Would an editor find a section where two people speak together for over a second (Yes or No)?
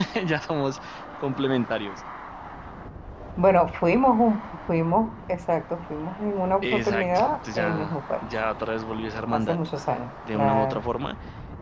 Yes